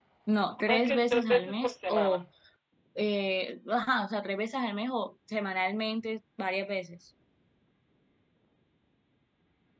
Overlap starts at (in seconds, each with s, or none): 0.6 s